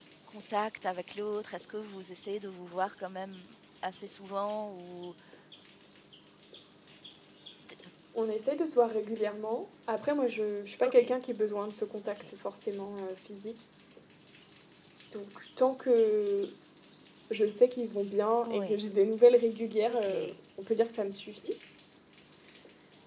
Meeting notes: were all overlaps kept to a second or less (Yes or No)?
Yes